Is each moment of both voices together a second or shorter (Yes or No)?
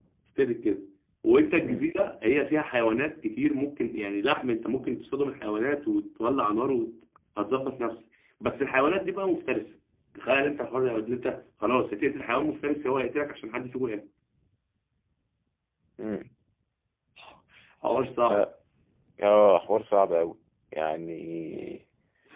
Yes